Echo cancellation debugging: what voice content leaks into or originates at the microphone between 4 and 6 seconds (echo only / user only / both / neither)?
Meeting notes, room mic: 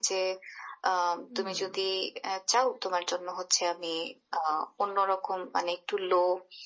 echo only